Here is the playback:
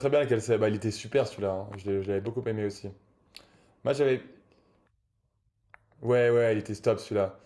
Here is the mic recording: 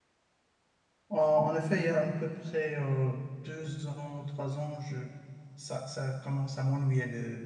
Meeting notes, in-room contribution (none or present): present